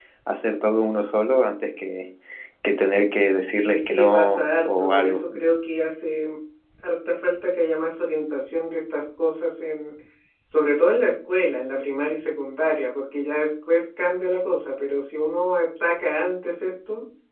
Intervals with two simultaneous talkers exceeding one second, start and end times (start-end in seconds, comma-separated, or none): 3.5-5.2